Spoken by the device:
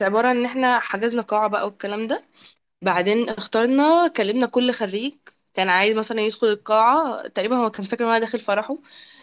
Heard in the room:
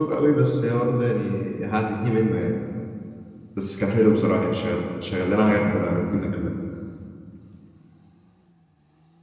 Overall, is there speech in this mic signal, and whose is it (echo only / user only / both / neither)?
user only